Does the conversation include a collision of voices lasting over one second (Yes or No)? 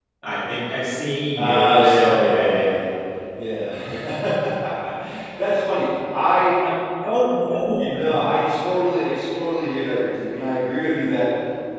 Yes